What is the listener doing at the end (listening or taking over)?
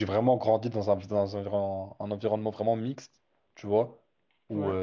listening